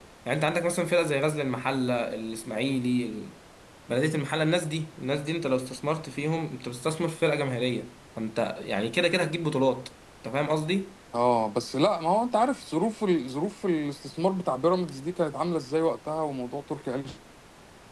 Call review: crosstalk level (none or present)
none